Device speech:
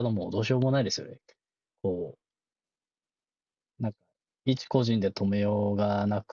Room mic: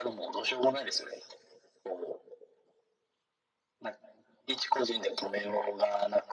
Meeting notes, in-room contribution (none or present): none